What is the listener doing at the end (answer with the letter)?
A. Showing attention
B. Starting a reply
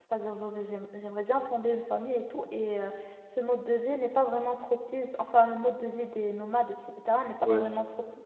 A